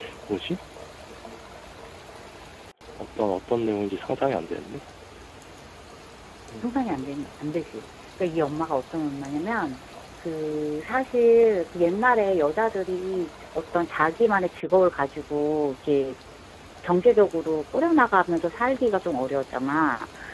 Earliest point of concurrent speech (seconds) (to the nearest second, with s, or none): none